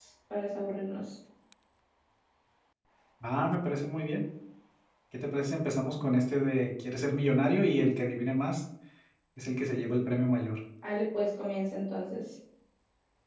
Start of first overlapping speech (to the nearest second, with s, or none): none